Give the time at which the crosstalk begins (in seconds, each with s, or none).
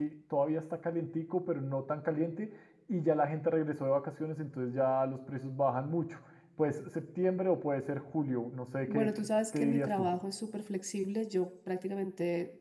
8.9 s